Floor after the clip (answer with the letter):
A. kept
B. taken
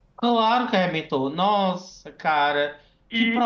B